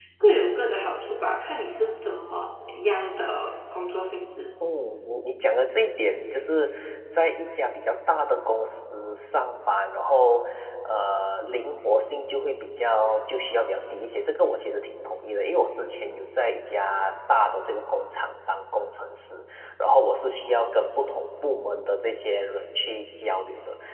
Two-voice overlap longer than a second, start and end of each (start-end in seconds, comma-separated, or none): none